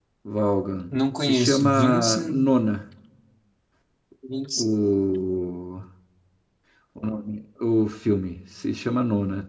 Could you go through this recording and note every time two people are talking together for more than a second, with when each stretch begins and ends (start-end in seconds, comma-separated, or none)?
1.2-2.4